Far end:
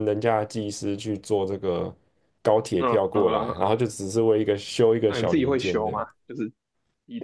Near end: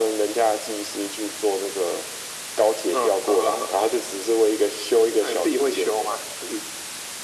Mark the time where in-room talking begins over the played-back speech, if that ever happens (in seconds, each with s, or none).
none